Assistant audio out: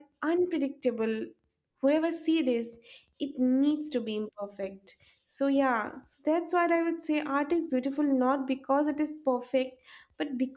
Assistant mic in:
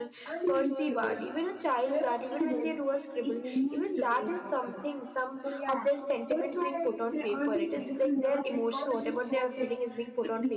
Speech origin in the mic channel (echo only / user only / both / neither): both